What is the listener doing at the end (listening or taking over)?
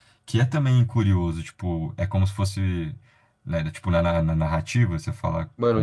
taking over